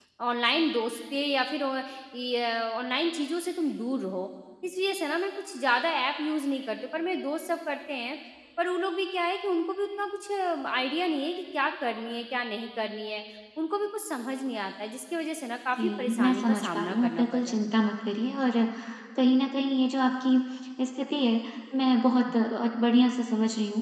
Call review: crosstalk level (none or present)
present